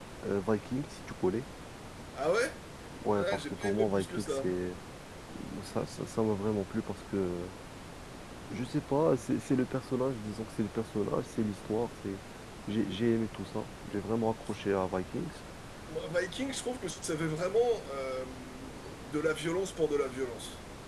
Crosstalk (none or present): present